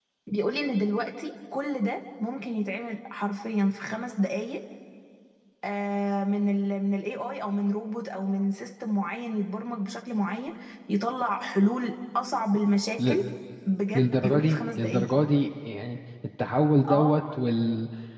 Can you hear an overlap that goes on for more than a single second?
Yes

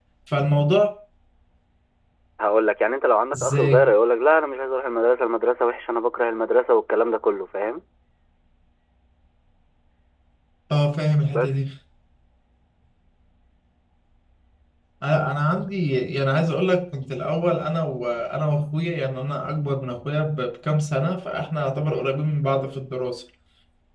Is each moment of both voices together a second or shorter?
Yes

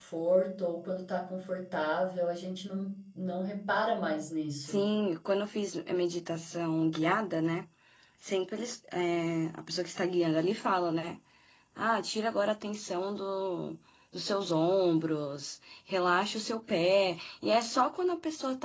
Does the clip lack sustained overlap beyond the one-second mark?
Yes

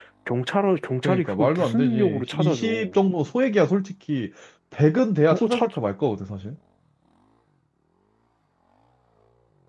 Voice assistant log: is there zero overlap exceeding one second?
No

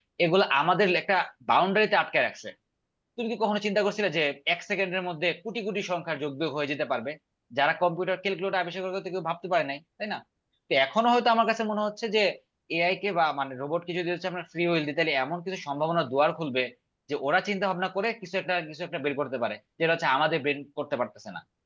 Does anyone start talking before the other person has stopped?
No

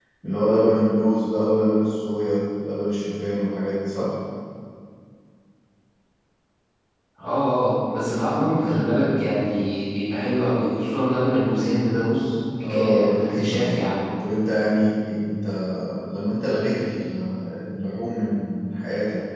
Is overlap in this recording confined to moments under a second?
No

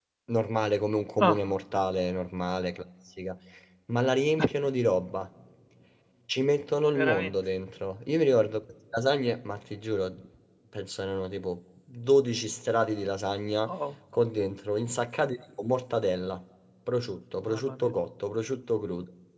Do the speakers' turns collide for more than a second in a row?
No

